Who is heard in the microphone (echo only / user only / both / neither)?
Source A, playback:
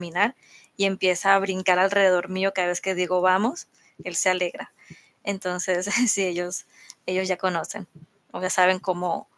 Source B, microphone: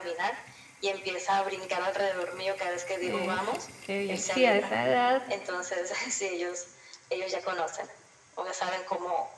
both